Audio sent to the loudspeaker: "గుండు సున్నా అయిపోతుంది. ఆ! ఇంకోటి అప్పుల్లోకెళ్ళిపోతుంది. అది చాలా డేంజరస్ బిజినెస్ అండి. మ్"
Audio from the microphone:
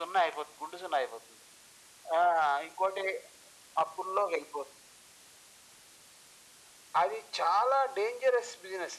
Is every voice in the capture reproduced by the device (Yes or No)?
Yes